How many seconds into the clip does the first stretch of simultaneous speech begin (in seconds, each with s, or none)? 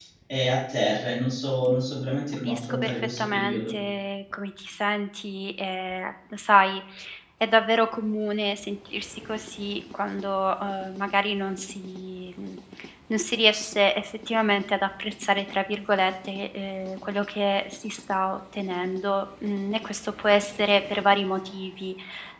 2.5 s